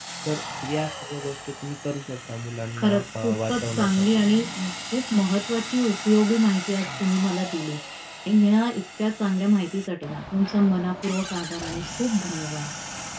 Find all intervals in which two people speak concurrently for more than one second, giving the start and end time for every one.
2.8-4.2

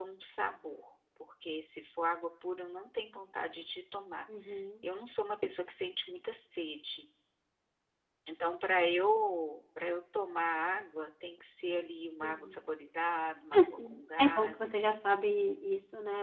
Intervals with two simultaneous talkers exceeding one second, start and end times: 13.5-15.2

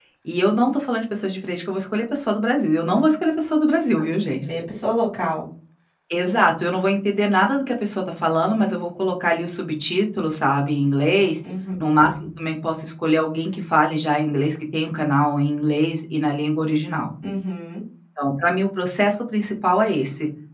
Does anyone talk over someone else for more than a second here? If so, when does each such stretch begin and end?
none

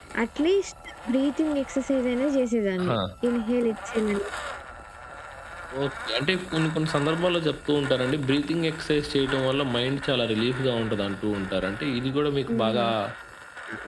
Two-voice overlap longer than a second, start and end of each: none

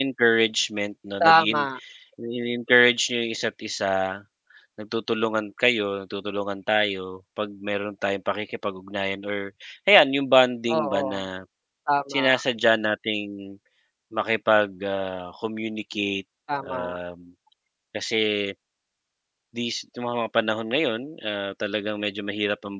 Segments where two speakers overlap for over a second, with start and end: none

